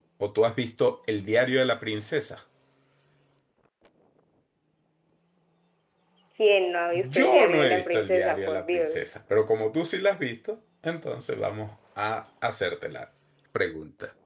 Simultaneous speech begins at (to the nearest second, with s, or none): 7 s